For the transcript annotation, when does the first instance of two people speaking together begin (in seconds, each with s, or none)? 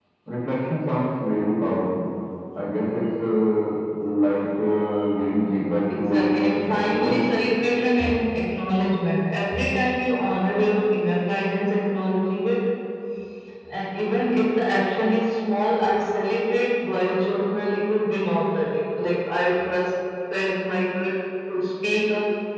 5.9 s